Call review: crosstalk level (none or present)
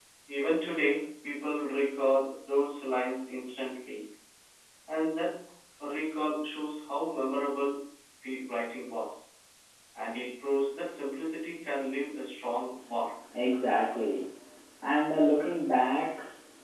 none